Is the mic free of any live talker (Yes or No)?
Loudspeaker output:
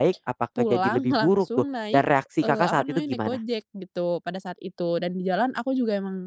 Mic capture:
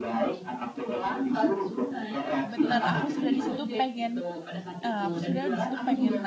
No